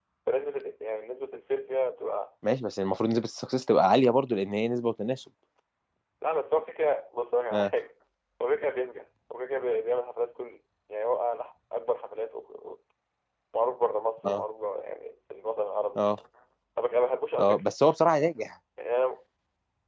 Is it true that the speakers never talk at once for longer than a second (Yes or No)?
Yes